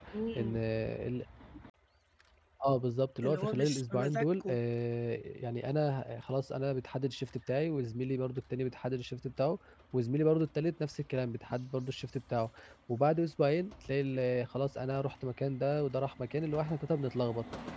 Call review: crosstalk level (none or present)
present